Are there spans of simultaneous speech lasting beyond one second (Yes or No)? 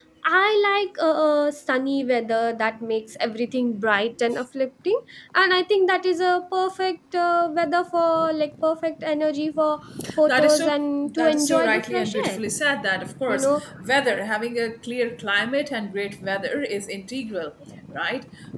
Yes